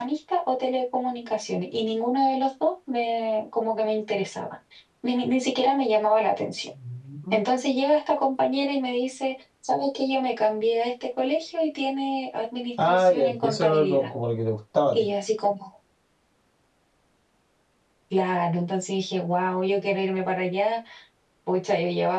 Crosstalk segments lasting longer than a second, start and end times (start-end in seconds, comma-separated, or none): 12.8-14.1